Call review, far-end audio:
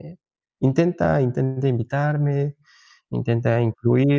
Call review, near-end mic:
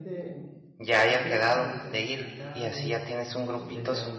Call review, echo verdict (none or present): present